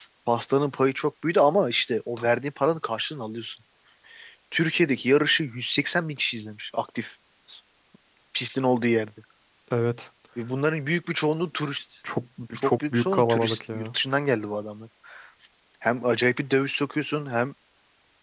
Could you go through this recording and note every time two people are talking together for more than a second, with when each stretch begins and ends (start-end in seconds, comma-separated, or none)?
12.6-13.9